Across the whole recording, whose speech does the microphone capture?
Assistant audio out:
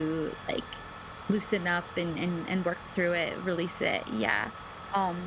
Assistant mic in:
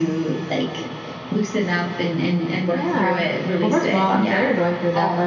both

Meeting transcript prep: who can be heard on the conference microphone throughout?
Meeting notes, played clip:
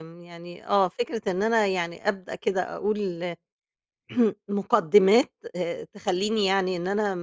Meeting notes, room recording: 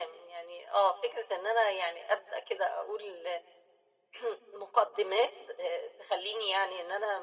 echo only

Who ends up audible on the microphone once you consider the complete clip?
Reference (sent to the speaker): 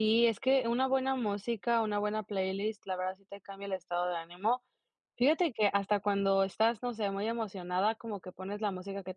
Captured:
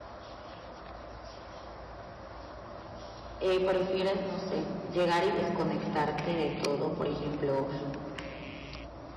user only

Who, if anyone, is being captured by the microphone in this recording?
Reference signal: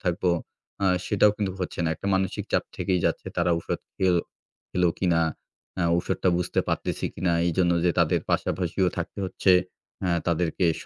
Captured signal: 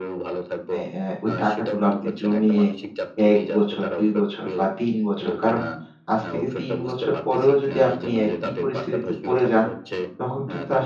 both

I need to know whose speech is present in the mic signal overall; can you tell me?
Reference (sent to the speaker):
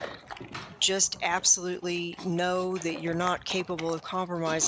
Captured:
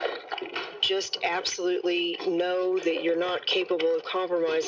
echo only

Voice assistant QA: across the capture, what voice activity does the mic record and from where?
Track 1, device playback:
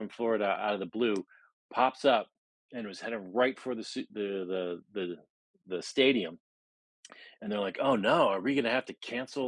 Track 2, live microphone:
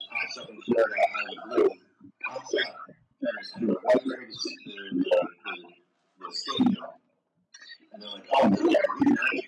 echo only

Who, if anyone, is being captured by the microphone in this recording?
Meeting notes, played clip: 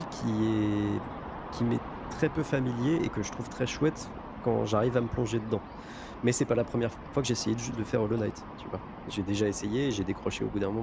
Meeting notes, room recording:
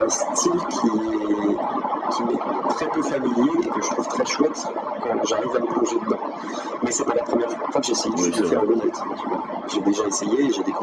both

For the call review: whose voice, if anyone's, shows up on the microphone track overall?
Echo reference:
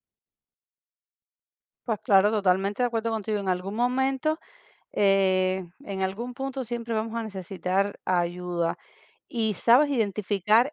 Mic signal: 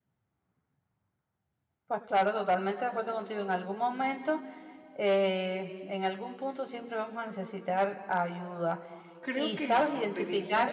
both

